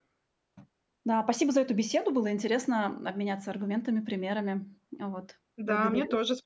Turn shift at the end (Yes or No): Yes